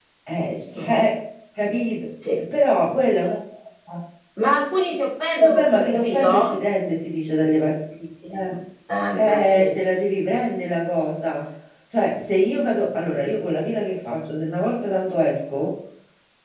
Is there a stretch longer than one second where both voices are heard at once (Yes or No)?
Yes